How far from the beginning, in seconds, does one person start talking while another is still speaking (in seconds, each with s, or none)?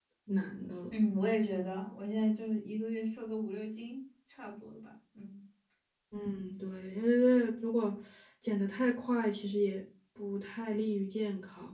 none